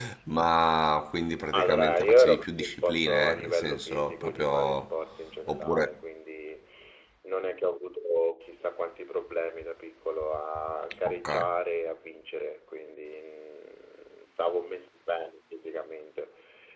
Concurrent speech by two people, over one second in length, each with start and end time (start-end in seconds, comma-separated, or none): 1.5-4.8